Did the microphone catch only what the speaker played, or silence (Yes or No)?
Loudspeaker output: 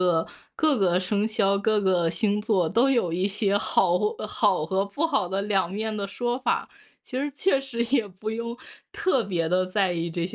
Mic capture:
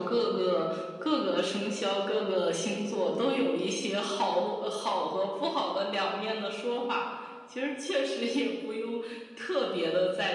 Yes